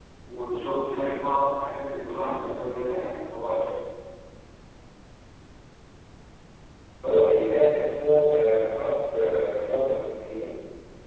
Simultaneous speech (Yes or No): No